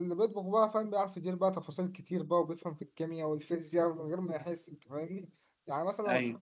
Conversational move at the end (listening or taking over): listening